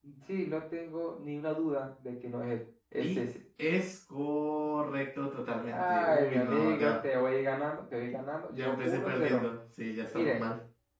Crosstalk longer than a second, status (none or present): present